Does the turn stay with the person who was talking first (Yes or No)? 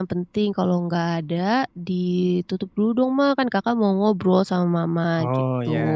Yes